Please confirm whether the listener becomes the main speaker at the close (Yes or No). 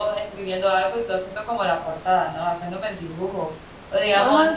No